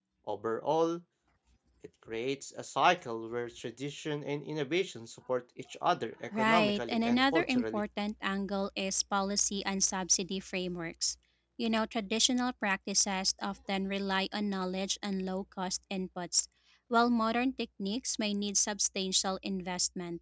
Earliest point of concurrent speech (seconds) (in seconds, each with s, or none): 6.3 s